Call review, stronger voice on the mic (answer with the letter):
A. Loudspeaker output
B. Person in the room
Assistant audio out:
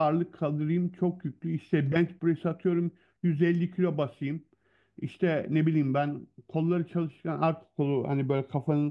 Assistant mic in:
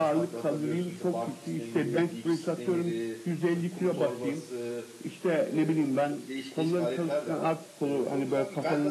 A